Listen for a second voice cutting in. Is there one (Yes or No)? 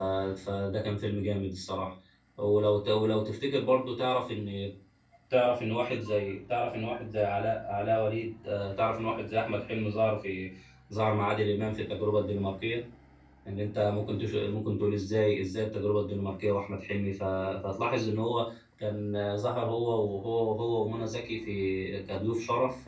No